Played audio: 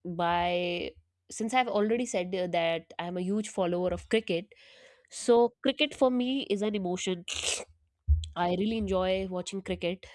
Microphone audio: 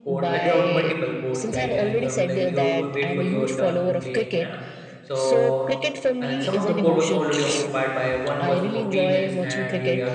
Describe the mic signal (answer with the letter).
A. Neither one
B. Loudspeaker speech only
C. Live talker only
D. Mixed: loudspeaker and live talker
D